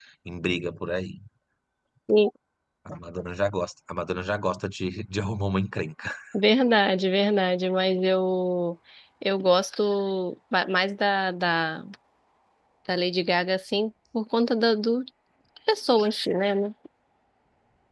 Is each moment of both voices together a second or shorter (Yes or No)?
Yes